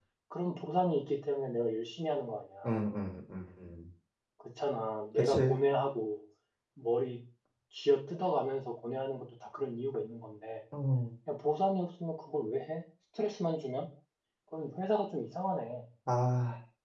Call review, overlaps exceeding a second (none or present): none